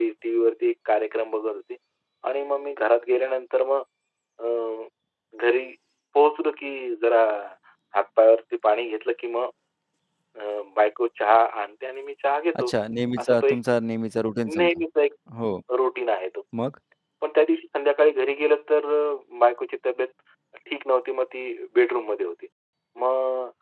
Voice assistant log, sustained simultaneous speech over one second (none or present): none